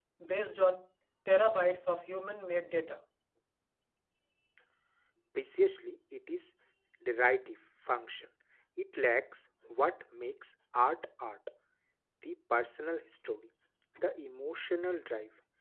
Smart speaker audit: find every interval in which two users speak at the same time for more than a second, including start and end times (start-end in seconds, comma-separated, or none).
none